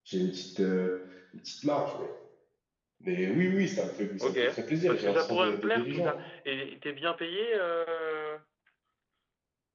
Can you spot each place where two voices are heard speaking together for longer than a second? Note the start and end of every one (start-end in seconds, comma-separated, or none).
4.9-6.1